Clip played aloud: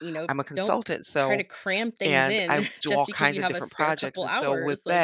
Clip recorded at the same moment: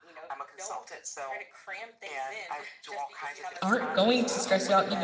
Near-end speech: present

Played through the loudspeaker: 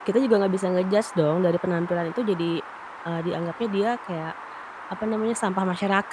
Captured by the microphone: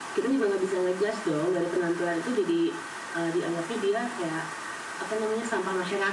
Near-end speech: none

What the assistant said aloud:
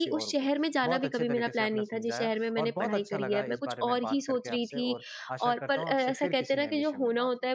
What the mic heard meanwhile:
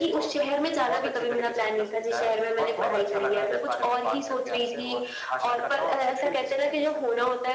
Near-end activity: none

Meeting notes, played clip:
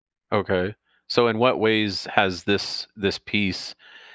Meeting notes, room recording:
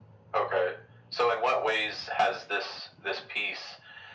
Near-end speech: none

